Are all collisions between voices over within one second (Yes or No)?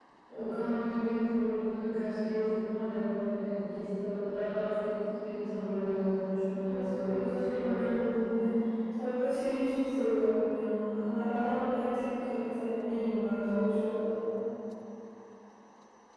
No